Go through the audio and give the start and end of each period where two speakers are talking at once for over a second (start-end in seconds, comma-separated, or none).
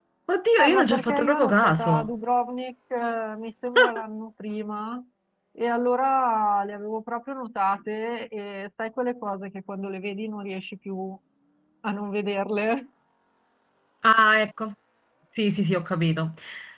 0.6-2.1